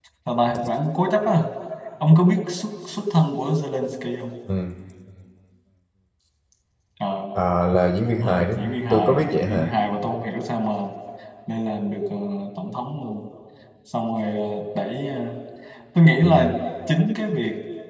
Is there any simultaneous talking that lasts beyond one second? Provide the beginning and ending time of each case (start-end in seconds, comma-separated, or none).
8.2-9.7